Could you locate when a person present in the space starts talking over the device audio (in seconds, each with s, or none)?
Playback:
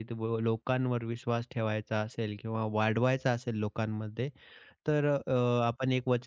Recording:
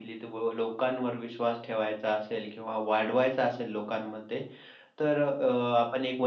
none